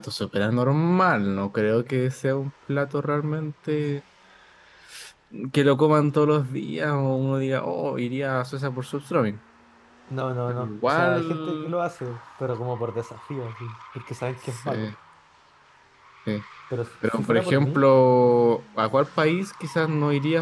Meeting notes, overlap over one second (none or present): present